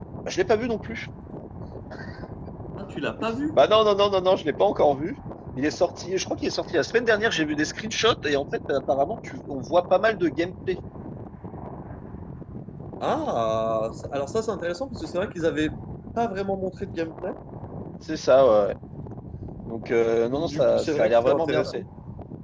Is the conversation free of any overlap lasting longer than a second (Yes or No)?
No